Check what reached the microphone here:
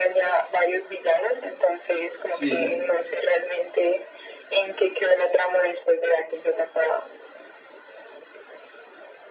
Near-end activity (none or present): present